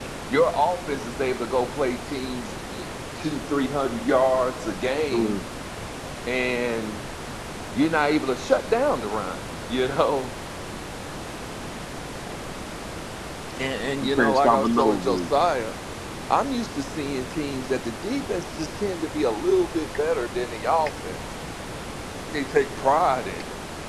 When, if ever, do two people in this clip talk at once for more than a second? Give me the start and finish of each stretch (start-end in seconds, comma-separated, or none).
14.0-15.2